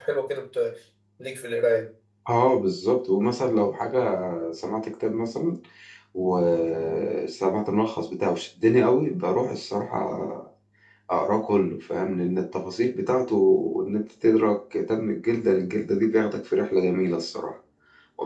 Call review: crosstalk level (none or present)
none